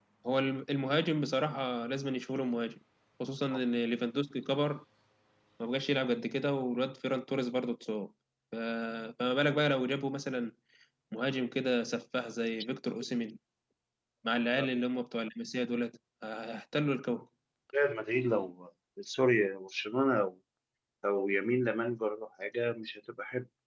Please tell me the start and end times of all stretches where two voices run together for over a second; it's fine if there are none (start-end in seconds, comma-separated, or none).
none